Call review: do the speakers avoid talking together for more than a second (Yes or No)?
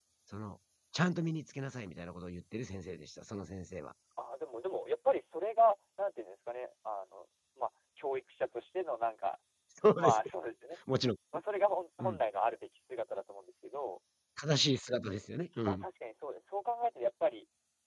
Yes